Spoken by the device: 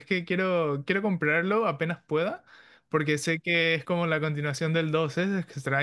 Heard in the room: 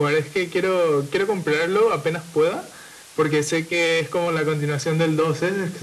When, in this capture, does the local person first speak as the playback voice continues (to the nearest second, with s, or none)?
none